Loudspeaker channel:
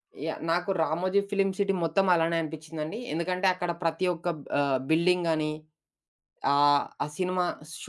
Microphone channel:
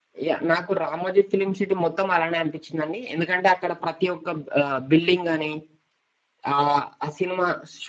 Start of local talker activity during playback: none

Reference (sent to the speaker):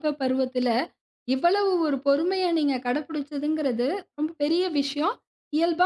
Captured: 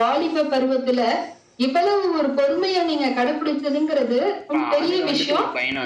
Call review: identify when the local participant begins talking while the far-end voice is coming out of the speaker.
4.6 s

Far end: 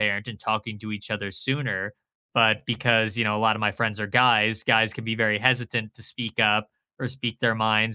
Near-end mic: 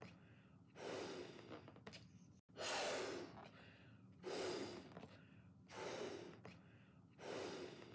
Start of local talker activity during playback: none

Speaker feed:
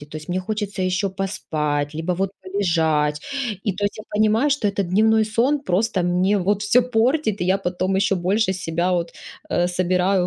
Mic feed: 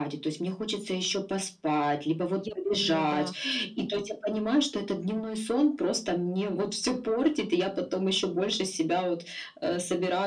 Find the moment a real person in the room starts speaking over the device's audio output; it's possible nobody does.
2.3 s

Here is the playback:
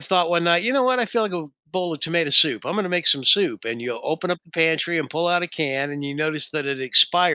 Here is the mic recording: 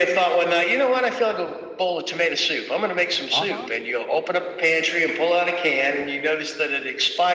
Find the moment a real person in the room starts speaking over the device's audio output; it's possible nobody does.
3.3 s

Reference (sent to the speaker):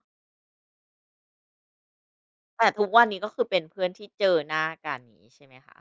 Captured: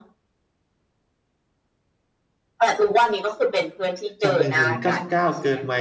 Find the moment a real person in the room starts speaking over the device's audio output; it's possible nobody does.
4.2 s

